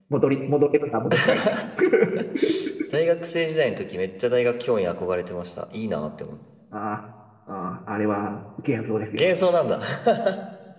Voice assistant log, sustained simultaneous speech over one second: none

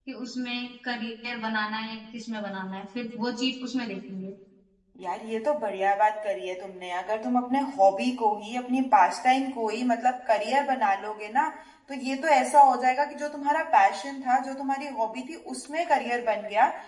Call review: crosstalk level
none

